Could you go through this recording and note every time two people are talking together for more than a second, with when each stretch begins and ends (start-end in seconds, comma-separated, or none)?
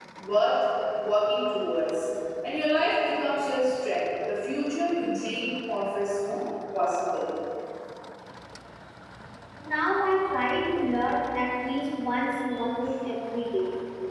none